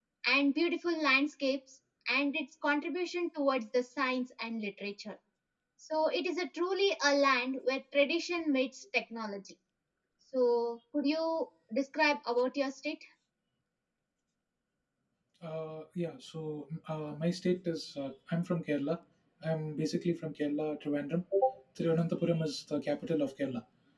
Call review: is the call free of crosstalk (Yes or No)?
Yes